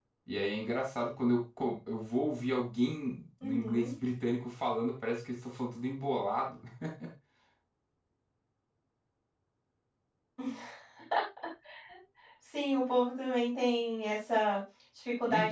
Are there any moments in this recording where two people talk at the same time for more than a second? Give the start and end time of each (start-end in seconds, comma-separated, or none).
none